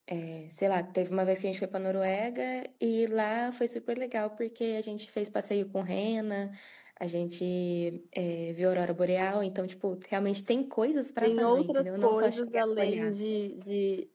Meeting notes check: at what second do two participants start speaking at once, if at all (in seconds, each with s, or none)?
11.2 s